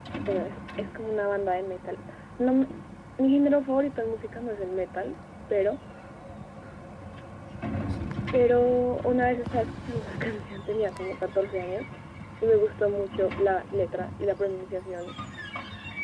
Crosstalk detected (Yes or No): No